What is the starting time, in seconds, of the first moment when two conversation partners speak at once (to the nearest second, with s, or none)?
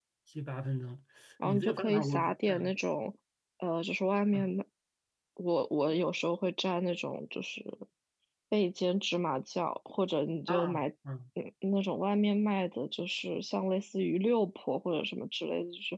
1 s